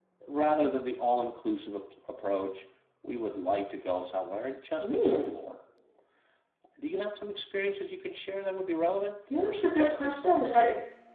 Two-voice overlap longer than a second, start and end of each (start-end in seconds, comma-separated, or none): 9.4-10.6